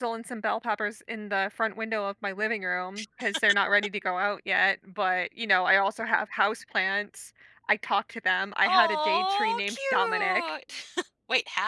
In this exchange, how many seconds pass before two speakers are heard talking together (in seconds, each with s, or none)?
8.6 s